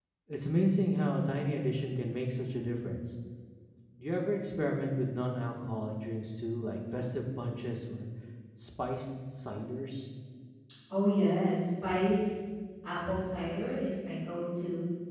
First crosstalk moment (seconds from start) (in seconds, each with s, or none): none